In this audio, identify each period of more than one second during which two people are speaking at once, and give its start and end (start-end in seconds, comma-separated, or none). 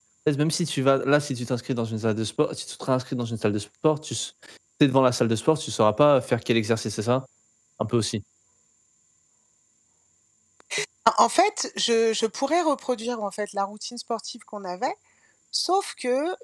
none